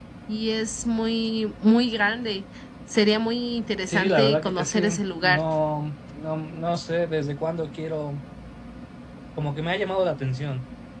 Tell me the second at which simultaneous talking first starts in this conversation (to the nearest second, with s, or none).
4 s